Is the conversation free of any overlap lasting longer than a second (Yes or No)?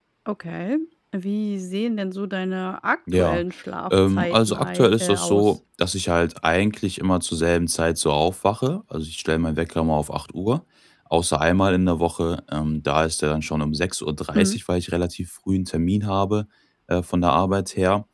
No